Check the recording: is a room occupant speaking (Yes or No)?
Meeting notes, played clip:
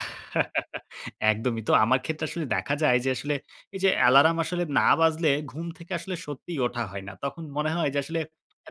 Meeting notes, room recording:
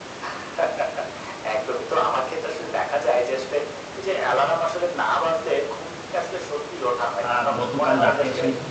Yes